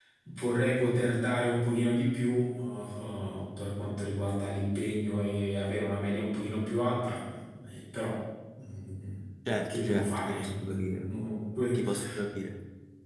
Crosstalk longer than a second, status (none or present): present